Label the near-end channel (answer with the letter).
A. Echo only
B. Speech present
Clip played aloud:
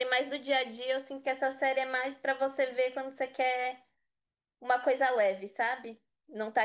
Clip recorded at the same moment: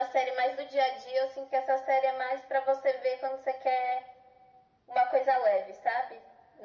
A